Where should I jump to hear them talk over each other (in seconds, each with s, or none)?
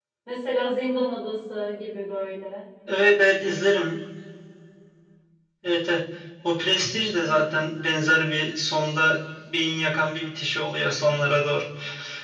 none